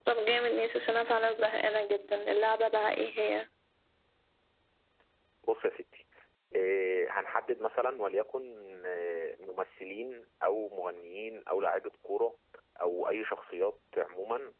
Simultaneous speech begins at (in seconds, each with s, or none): none